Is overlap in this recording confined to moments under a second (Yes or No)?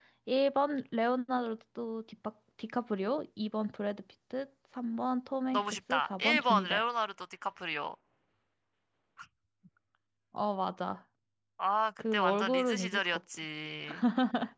No